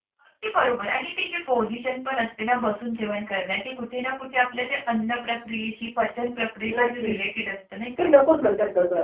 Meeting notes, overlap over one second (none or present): none